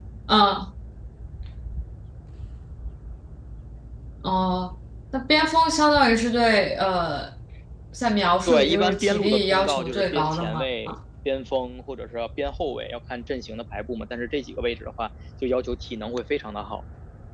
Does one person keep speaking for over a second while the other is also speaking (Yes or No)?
Yes